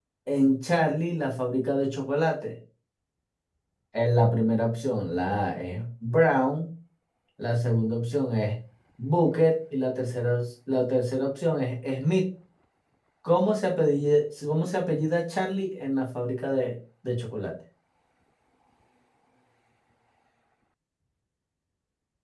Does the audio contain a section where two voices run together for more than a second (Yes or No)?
No